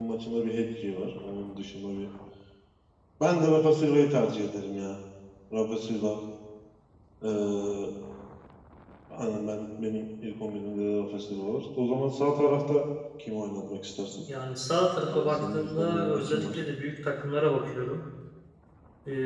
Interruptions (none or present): present